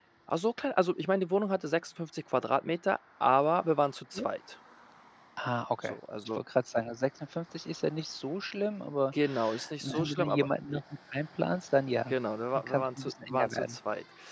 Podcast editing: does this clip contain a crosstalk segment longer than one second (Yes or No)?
Yes